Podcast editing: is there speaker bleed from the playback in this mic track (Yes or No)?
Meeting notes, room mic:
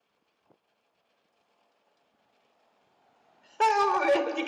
No